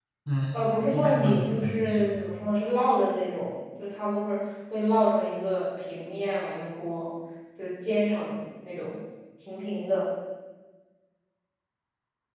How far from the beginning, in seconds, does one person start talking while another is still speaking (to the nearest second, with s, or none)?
1 s